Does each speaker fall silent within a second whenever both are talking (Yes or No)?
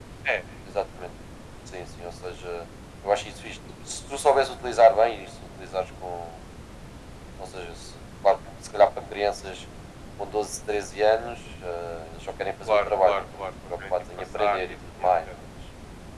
No